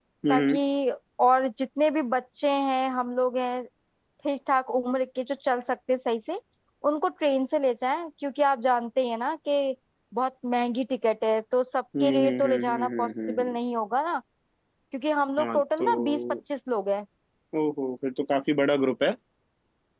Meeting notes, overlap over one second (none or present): present